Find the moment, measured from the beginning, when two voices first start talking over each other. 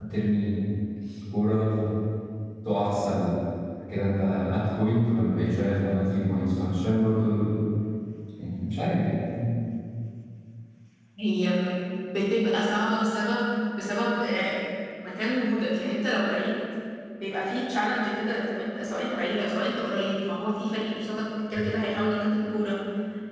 none

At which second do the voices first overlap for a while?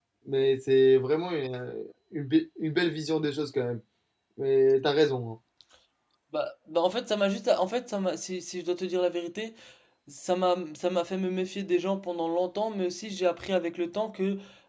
none

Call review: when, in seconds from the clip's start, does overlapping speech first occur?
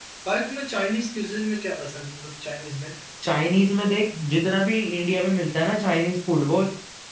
none

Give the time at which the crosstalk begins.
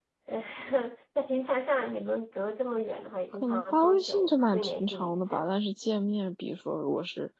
3.3 s

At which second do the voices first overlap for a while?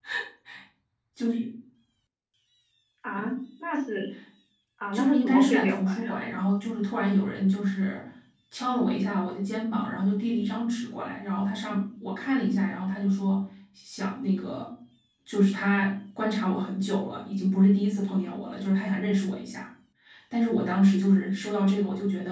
4.9 s

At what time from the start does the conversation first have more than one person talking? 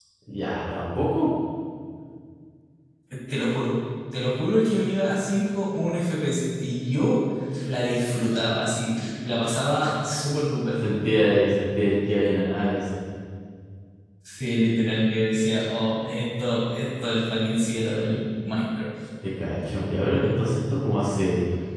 none

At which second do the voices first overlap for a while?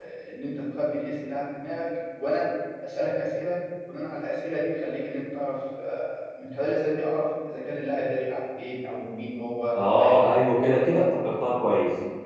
9.8 s

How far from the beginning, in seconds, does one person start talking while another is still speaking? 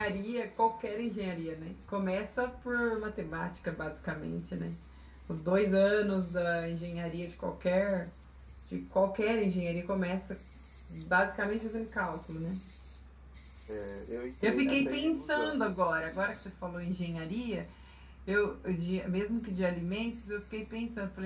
14.4 s

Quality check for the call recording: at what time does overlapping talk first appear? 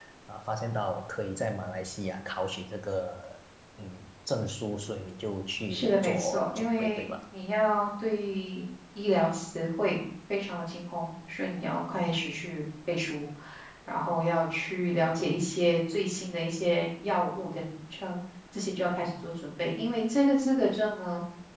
5.7 s

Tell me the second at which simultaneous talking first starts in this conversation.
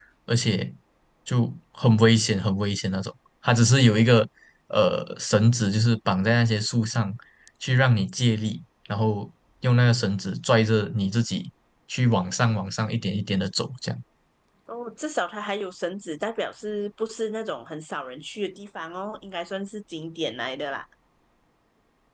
none

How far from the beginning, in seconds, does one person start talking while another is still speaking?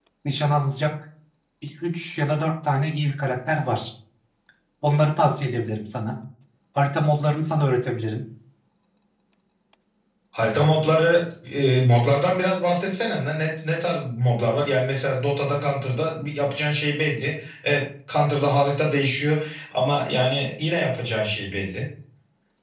none

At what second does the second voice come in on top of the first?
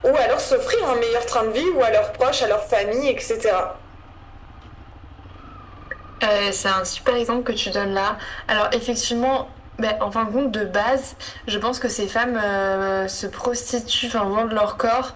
none

